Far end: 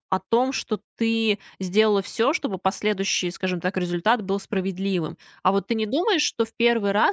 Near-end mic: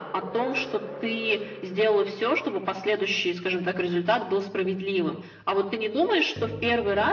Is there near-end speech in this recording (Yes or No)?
No